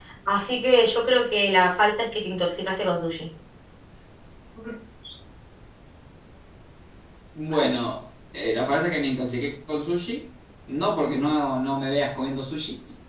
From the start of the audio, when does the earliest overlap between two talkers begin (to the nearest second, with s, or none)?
none